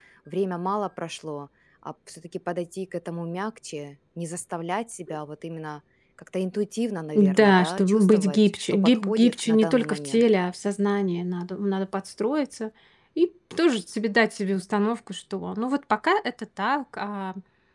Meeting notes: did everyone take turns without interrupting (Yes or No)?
No